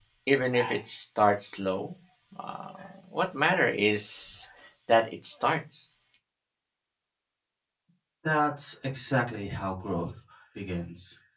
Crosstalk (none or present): none